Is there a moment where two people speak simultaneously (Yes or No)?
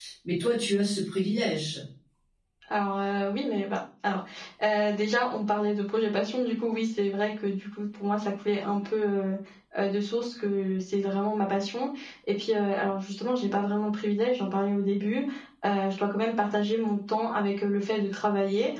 No